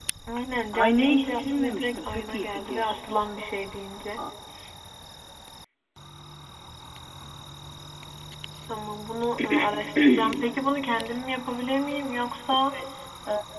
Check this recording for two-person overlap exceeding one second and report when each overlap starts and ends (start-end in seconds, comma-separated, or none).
0.7-3.0